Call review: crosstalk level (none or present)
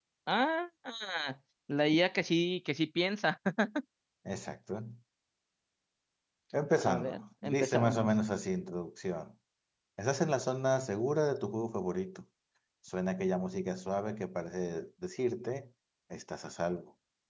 present